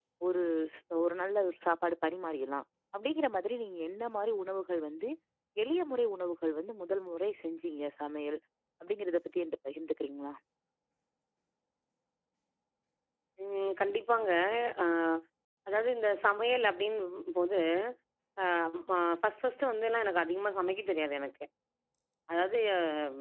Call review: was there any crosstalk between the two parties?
No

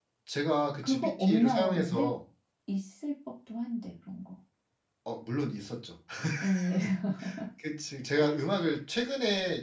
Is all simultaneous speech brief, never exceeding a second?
No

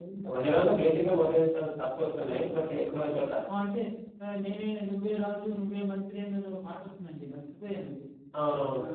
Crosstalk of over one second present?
No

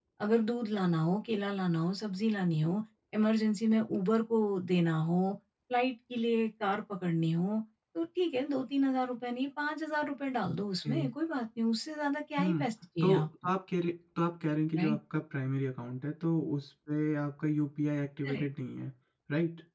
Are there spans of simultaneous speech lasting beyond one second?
No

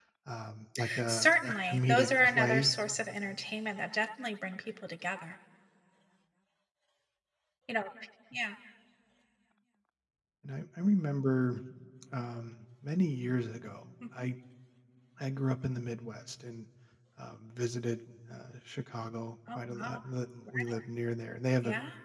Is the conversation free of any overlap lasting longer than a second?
No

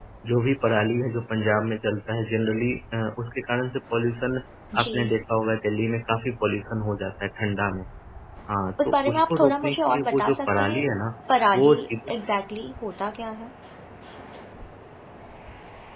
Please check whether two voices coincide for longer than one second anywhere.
Yes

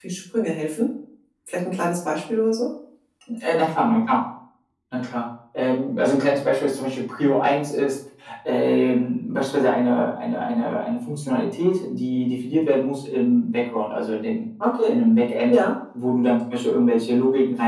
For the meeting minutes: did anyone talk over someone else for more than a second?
No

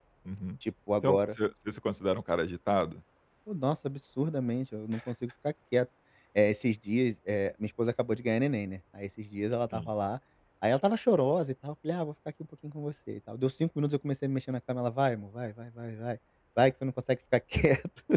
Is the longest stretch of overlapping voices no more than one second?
Yes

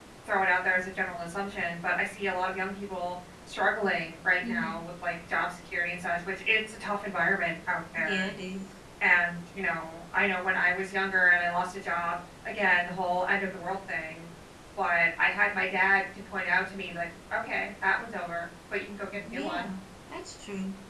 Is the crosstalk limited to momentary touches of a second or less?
Yes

